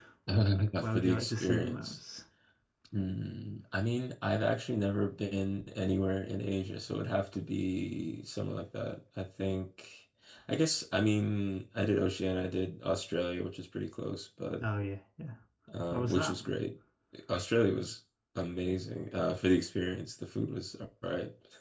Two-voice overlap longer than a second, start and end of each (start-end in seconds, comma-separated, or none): 0.6-2.0